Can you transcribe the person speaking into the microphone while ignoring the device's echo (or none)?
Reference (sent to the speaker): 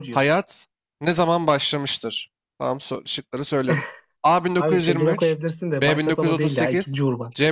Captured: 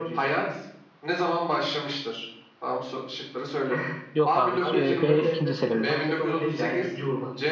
yok abi. C- e, B. ikinci Selim'de.